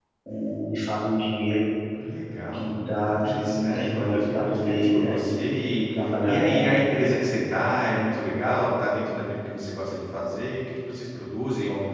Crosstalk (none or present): present